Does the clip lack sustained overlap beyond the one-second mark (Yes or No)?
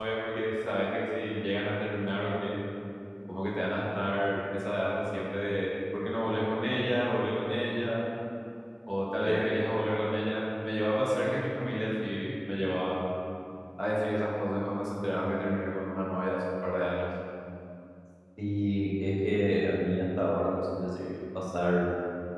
Yes